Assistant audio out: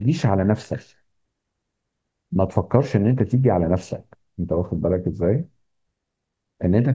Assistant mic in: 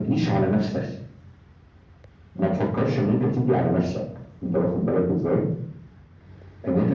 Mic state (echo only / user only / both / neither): echo only